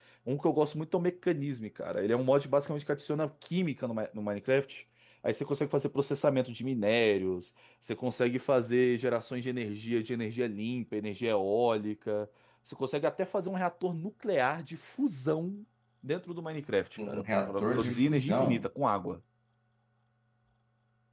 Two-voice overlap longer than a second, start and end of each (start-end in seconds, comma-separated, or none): 17.1-18.6